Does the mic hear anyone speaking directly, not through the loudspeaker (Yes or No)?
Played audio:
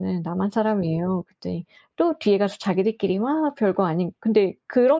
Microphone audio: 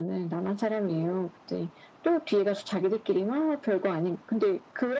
No